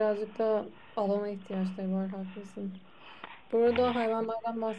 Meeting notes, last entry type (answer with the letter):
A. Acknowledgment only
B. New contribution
A